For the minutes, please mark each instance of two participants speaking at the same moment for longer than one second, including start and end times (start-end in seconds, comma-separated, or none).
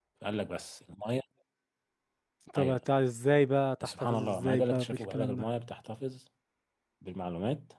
3.8-5.5